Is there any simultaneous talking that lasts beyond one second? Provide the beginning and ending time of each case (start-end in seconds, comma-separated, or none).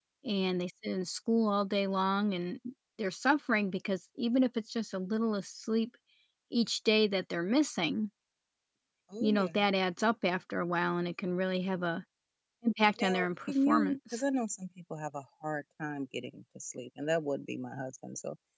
13.0-14.2